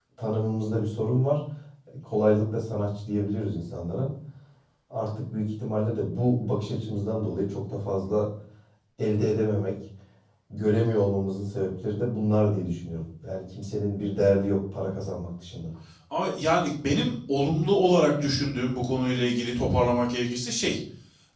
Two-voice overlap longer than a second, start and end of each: none

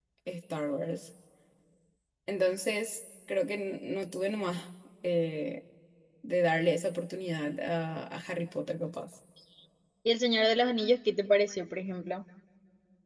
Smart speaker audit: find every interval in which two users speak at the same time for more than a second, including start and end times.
none

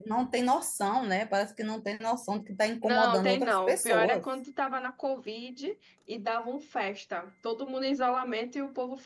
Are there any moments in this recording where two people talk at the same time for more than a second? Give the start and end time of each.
2.8-4.2

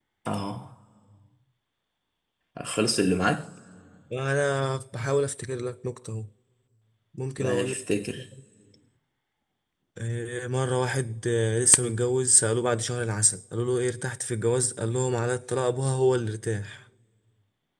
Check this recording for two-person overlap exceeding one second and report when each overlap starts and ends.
none

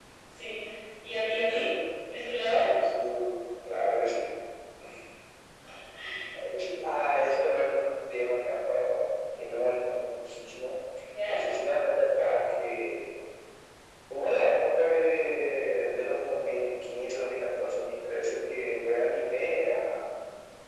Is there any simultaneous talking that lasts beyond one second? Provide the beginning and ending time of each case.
none

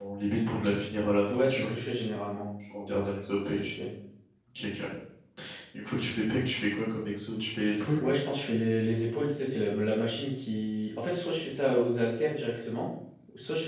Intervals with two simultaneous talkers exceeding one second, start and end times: none

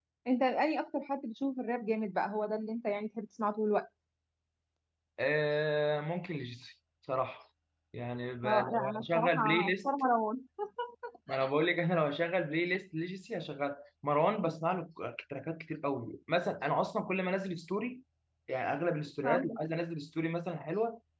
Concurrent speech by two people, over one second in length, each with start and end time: 8.4-9.9

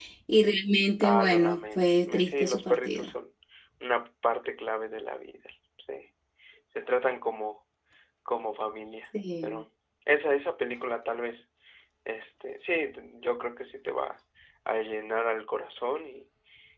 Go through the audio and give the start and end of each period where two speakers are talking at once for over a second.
1.0-3.1

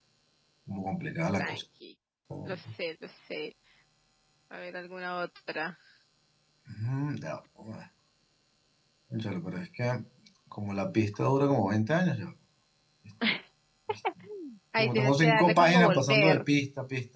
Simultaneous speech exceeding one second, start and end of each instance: 14.8-16.4

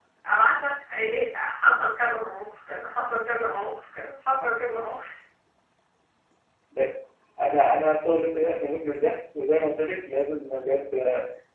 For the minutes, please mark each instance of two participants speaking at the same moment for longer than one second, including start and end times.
none

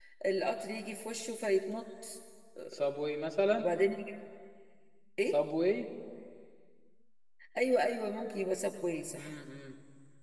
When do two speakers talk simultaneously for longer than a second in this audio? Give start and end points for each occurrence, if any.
none

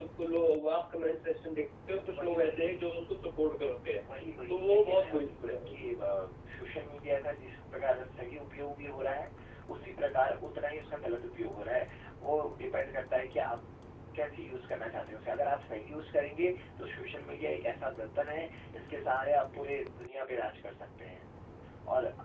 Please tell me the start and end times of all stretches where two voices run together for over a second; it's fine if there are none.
4.5-5.7

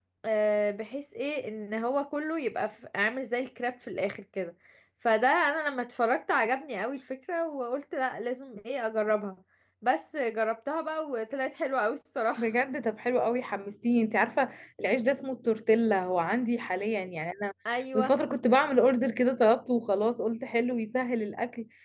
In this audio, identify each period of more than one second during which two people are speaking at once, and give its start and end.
none

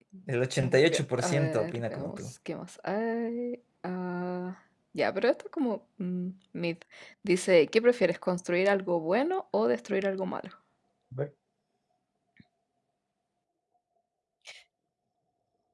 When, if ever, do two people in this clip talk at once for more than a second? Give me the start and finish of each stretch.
0.6-2.1

